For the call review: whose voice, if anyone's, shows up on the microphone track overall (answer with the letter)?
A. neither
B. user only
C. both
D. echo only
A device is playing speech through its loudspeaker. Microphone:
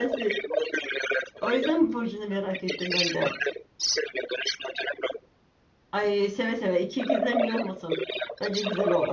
C